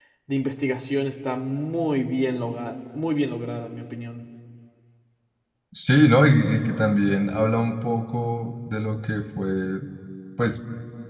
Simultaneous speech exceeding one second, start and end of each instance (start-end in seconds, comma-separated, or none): none